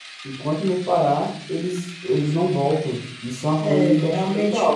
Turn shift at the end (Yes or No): Yes